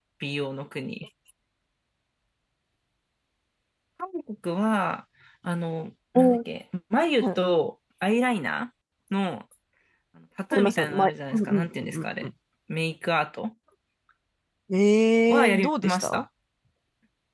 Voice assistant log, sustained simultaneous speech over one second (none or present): present